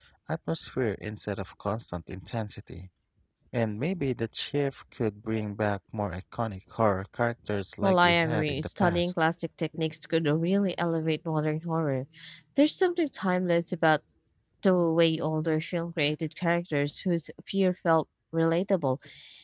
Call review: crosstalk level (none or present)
present